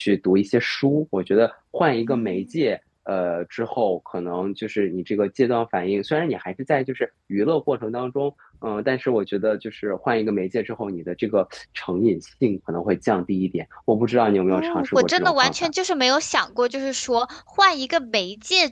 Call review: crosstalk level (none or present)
present